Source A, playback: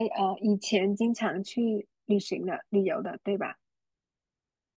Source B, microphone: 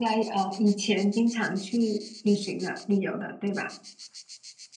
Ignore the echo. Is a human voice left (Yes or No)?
No